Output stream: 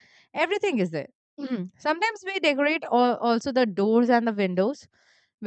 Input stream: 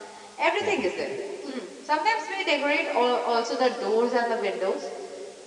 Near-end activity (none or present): present